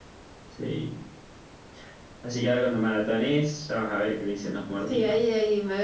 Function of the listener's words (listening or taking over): taking over